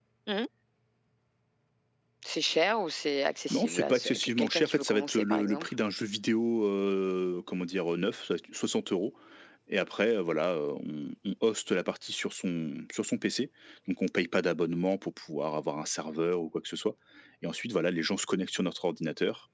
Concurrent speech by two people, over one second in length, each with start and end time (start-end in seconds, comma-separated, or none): 3.5-5.6